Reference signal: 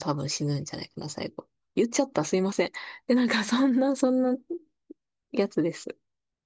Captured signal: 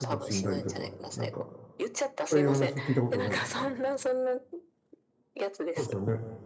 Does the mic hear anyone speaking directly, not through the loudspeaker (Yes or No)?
Yes